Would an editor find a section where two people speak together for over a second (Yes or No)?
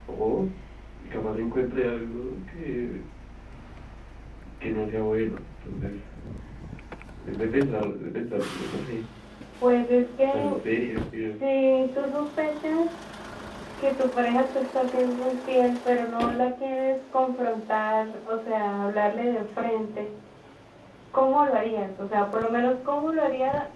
No